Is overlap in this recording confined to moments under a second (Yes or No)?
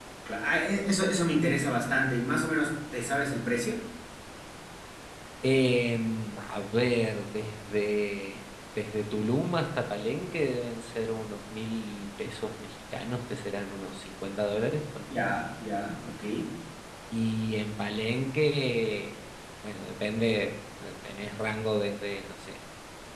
Yes